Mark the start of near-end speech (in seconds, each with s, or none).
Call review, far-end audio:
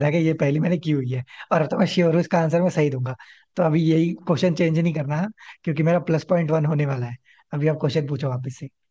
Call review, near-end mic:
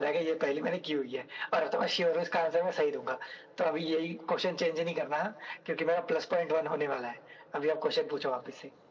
none